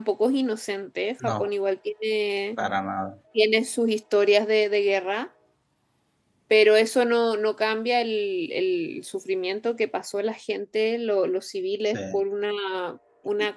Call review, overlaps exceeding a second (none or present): none